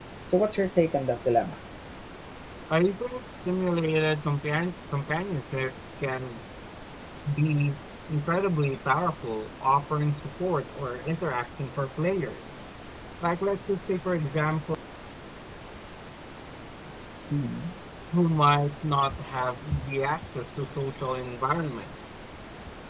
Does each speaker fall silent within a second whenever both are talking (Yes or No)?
Yes